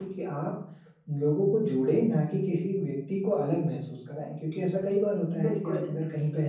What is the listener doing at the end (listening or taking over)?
listening